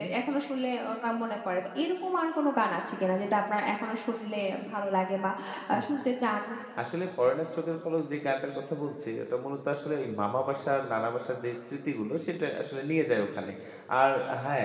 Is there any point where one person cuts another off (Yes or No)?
No